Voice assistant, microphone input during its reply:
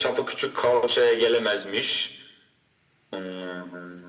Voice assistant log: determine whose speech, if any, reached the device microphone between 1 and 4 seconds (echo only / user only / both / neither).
echo only